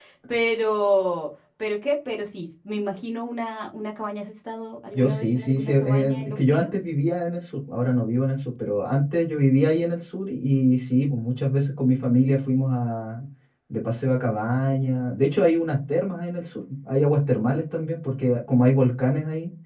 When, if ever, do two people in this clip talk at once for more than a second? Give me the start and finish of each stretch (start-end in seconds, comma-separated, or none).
4.9-6.7